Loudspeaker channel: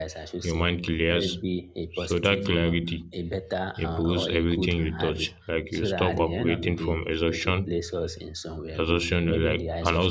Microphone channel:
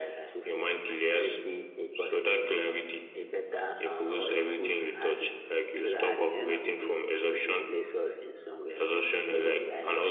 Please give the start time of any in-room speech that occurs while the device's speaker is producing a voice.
none

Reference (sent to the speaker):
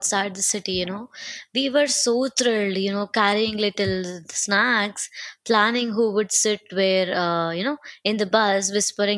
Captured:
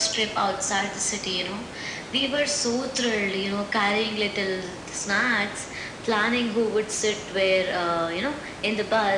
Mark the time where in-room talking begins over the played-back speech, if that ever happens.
none

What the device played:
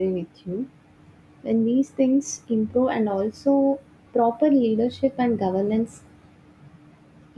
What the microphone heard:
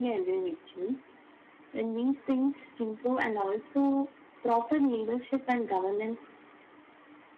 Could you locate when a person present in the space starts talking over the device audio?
none

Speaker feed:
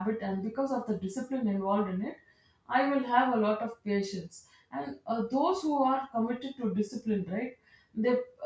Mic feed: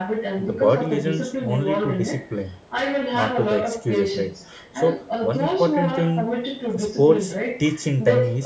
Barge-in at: 0.4 s

